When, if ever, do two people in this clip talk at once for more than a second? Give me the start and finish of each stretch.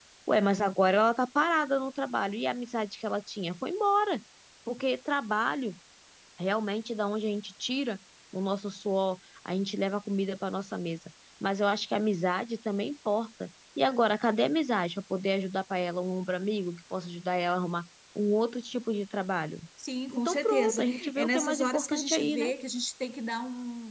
20.1-22.5

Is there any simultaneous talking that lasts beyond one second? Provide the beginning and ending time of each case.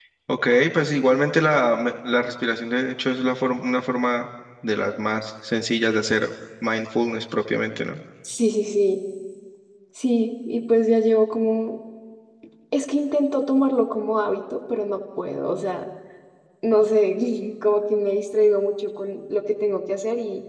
none

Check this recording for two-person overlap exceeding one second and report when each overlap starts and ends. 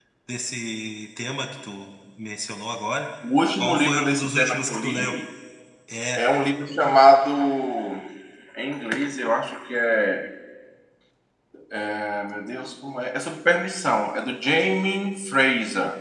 3.6-5.1

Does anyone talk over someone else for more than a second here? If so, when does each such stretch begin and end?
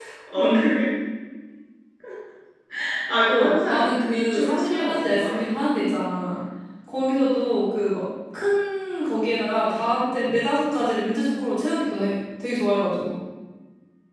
3.3-5.3

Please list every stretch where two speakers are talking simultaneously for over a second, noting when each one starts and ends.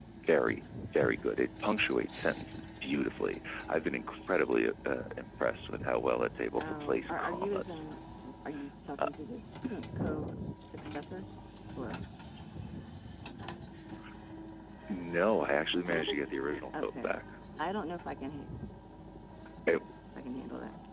6.6-7.8, 15.9-17.1

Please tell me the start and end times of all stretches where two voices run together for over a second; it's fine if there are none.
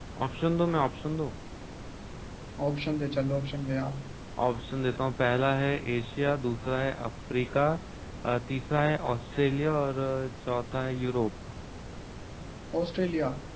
none

